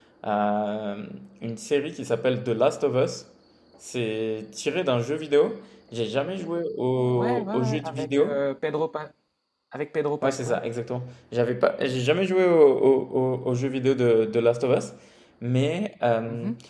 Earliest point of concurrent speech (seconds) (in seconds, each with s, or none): 7.2 s